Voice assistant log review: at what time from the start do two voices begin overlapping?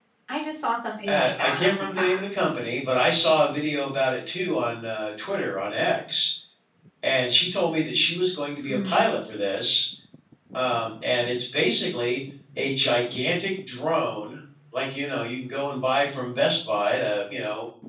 1.1 s

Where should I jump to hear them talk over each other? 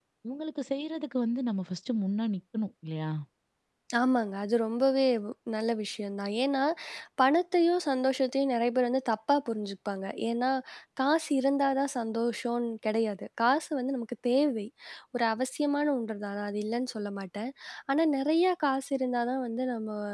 none

